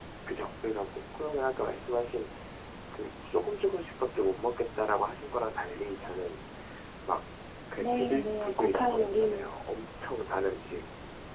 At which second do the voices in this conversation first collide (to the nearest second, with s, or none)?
8 s